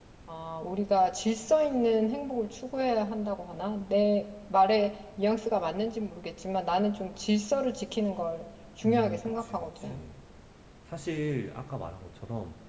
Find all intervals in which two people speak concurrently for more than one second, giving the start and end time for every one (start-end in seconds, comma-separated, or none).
8.8-10.0